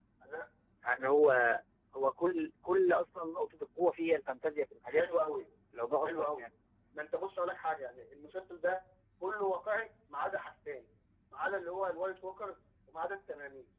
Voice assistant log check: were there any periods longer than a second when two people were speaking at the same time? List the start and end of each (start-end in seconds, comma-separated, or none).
none